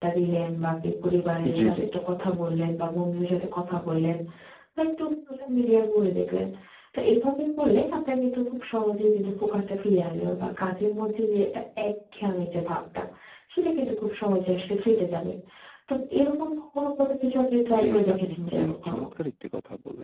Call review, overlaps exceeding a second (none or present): present